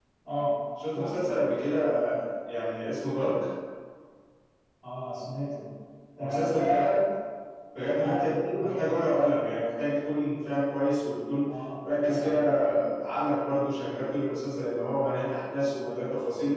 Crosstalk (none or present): present